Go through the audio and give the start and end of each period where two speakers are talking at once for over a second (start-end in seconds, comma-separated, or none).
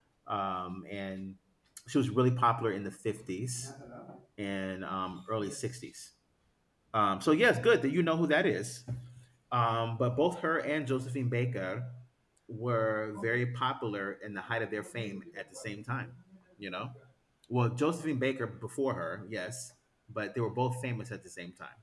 none